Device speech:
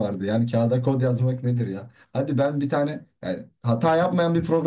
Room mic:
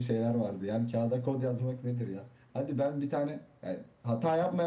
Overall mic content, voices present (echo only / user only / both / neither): echo only